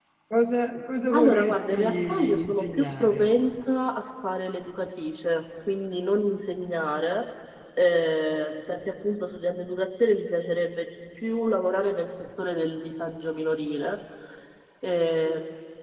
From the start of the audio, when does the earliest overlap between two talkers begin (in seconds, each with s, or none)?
1.1 s